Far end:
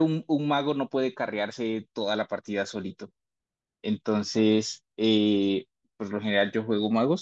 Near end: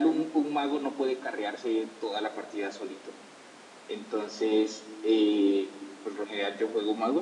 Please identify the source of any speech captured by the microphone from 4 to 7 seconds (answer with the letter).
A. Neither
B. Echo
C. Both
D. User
B